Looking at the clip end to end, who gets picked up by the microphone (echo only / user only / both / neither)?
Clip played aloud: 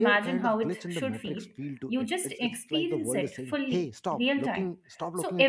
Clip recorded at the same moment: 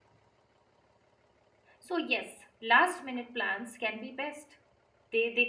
user only